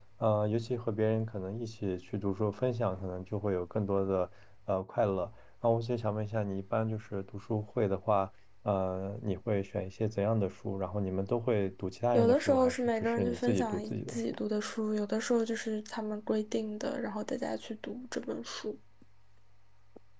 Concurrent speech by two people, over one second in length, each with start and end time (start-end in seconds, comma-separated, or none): 12.1-14.2